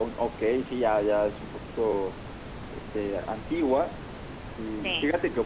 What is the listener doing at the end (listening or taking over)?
listening